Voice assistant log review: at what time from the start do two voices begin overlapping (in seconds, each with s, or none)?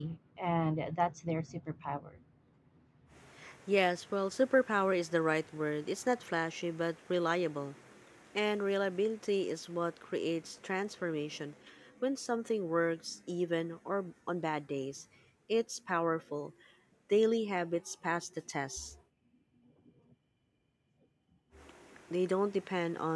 none